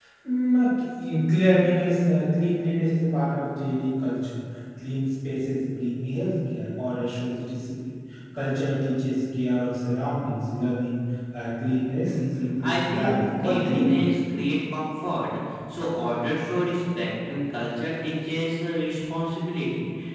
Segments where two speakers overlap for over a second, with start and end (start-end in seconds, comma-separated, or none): 12.6-14.1